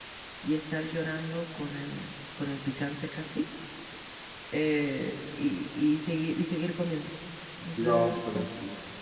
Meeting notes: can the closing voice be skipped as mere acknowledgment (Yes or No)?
No